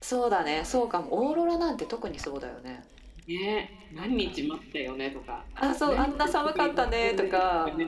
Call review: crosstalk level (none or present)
present